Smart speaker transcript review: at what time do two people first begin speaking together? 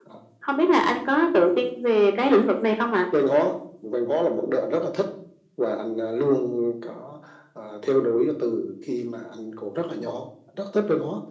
none

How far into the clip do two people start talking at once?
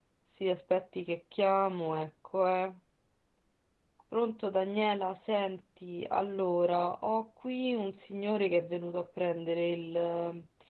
none

